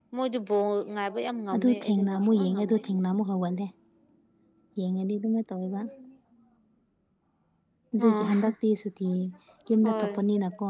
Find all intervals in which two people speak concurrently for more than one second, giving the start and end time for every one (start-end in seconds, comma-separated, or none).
1.5-2.8